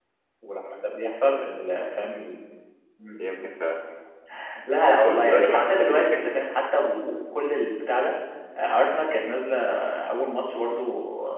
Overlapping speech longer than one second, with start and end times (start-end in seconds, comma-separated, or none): 5.0-6.4